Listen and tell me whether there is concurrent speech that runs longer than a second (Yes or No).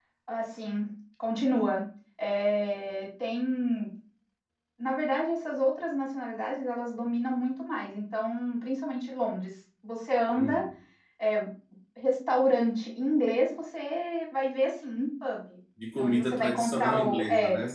Yes